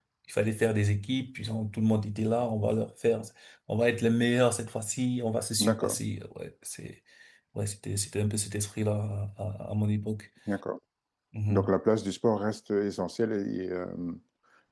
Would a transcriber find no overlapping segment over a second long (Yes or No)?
Yes